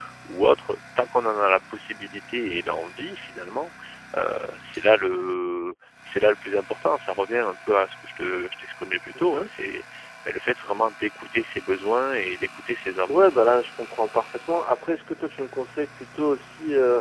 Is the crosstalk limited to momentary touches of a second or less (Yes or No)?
Yes